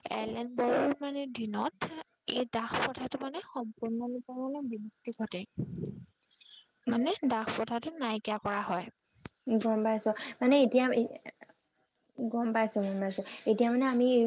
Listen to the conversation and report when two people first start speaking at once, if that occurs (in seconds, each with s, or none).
none